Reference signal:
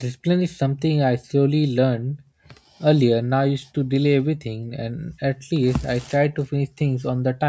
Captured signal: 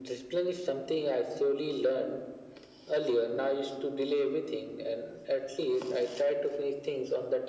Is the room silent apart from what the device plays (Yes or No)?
Yes